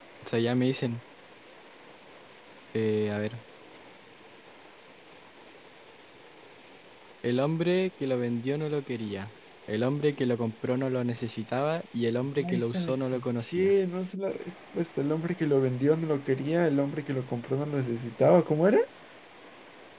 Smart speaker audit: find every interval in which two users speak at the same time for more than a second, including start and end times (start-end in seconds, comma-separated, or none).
12.5-13.7